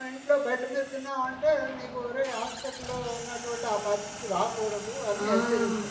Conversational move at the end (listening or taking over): taking over